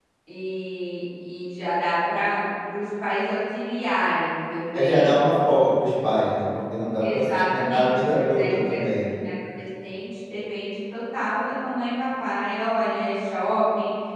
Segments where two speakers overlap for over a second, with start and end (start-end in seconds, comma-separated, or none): 7.0-9.2